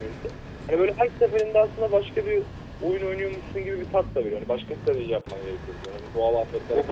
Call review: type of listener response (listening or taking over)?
taking over